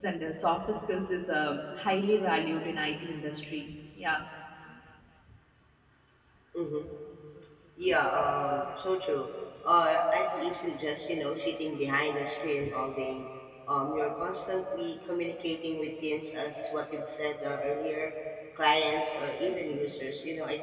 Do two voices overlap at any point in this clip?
No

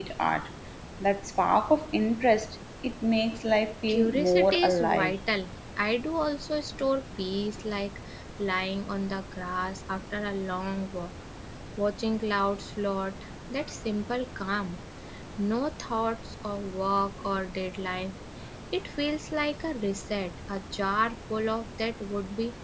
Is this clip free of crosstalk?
No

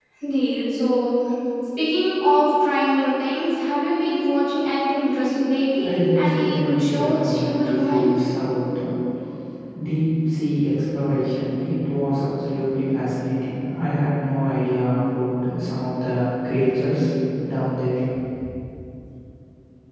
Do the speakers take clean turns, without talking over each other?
No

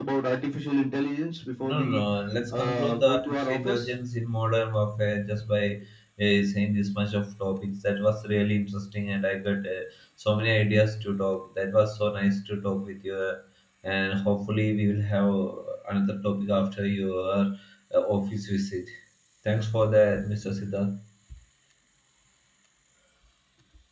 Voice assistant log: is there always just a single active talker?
No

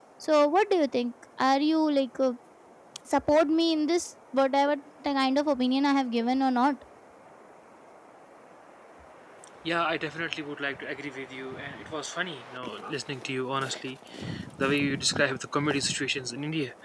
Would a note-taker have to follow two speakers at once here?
No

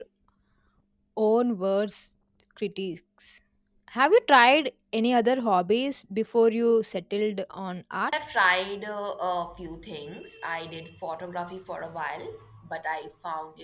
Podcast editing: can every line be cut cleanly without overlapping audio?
Yes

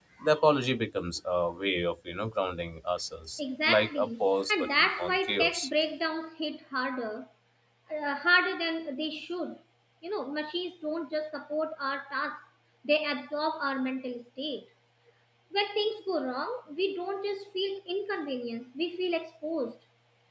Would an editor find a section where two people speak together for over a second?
Yes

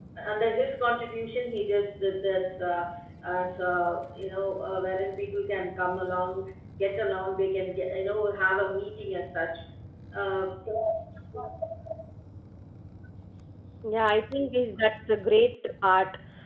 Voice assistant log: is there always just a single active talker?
Yes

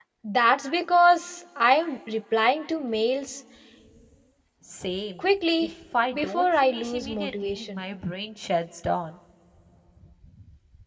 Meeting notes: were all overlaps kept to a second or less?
No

